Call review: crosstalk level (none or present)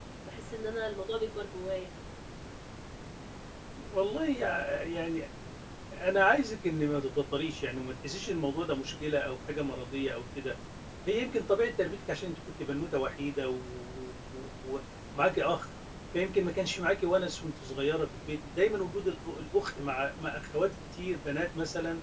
none